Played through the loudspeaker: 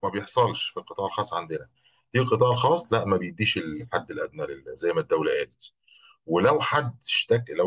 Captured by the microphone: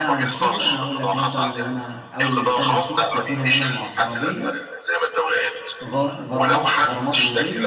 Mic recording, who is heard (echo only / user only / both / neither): both